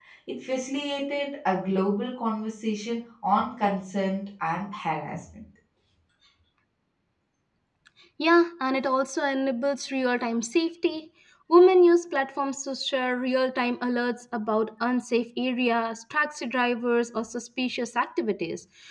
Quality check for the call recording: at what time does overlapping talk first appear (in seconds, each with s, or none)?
none